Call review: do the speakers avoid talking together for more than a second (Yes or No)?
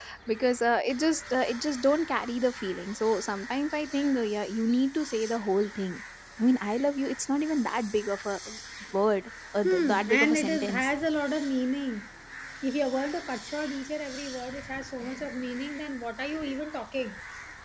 No